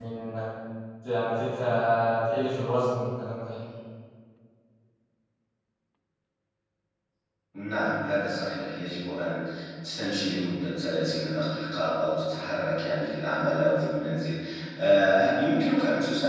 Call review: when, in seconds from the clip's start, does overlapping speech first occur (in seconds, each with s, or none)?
none